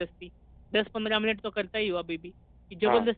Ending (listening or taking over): taking over